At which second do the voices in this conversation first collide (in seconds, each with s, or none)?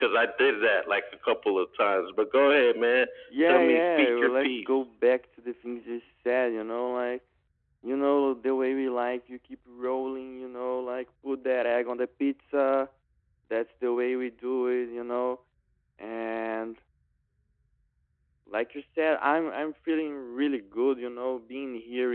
3.4 s